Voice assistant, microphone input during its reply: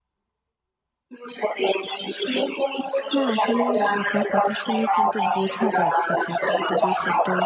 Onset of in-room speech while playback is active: 3.2 s

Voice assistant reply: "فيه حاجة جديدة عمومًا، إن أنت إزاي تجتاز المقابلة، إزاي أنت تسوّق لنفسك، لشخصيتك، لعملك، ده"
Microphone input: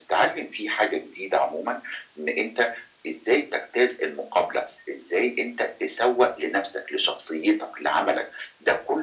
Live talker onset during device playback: none

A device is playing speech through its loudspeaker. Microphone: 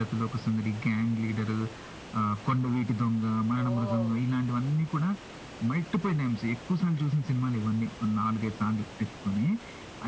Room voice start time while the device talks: 3.6 s

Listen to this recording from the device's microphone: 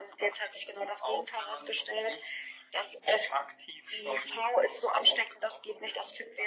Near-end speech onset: none

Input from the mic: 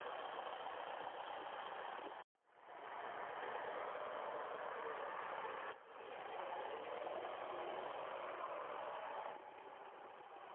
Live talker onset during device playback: none

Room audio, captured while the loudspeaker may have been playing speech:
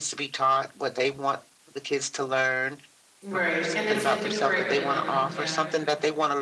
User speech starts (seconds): 3.2 s

